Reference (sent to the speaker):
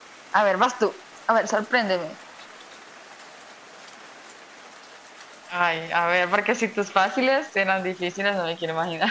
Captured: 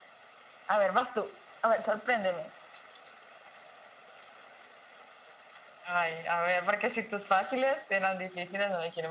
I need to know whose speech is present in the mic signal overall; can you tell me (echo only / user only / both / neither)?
echo only